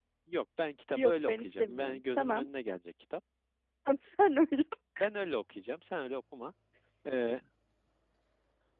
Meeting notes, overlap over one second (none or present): present